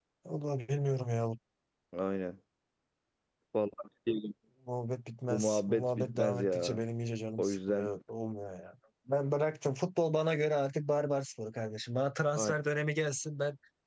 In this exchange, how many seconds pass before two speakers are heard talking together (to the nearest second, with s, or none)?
5 s